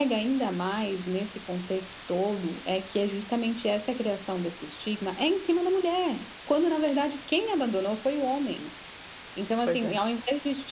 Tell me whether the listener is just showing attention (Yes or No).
Yes